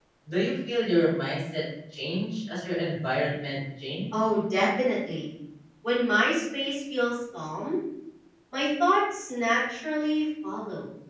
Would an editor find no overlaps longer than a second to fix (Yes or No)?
Yes